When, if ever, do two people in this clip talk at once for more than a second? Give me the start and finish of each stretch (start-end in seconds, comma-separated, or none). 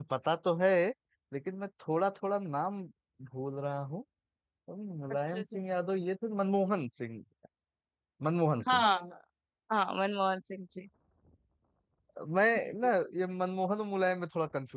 none